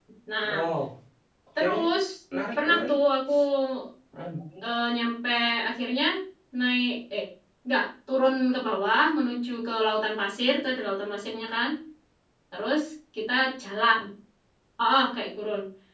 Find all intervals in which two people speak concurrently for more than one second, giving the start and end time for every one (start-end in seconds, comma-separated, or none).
none